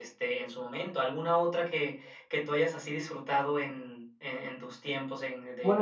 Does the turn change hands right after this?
Yes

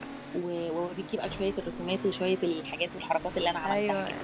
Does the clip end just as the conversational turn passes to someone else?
Yes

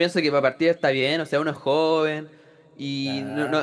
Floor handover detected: No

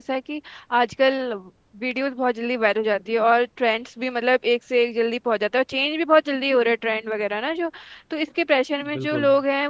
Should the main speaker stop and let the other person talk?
No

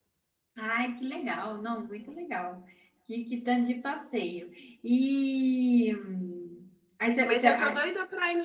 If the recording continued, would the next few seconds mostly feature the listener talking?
Yes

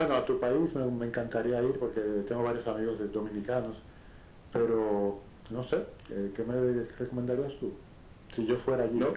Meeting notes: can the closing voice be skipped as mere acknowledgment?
No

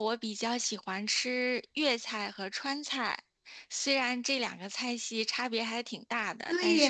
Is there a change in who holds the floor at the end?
Yes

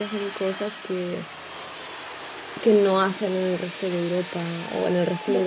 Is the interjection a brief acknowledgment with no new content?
Yes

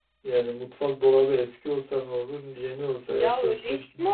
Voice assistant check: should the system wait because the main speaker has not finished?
No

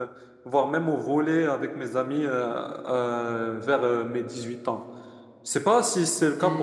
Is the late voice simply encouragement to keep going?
Yes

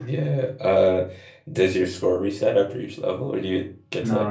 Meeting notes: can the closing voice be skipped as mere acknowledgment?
No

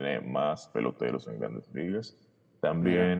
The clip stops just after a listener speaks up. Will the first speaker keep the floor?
Yes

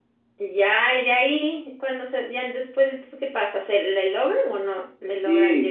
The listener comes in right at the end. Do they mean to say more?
Yes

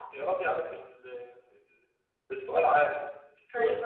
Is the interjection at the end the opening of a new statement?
Yes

